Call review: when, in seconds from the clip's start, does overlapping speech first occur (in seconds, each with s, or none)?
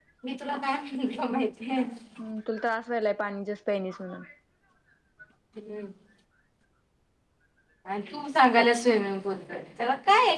none